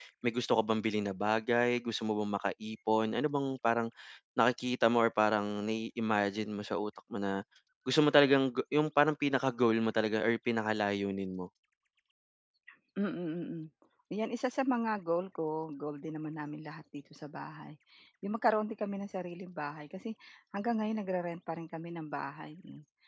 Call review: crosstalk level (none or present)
none